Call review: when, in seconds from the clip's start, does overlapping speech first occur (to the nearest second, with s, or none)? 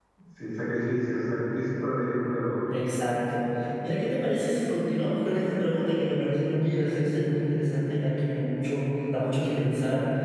none